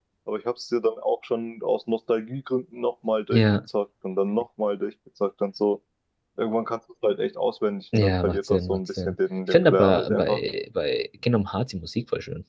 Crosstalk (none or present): present